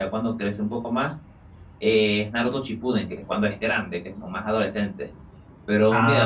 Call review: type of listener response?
taking over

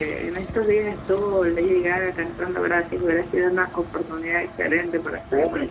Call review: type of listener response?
taking over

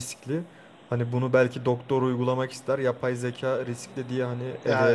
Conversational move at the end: taking over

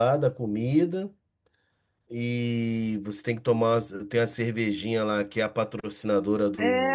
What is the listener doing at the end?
taking over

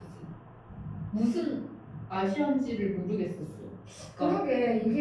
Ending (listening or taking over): taking over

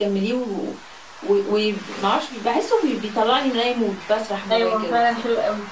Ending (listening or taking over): taking over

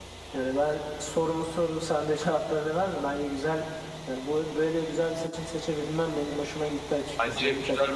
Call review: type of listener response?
taking over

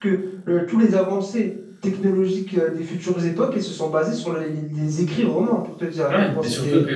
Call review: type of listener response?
taking over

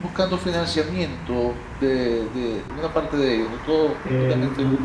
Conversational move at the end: taking over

